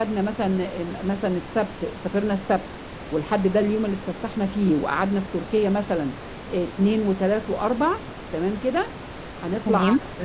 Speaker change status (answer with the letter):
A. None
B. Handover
A